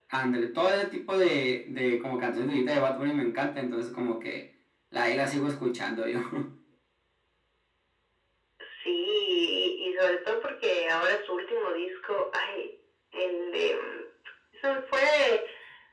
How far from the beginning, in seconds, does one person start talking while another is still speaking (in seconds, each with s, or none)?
none